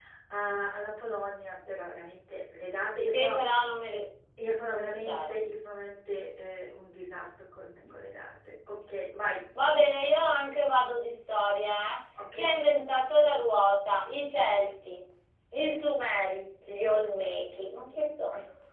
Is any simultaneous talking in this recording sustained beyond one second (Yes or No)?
No